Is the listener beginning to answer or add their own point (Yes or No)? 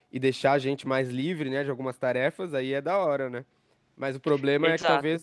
No